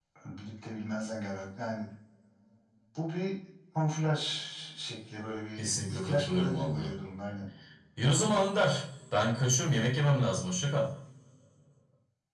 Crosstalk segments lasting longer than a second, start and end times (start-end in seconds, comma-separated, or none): 5.6-6.9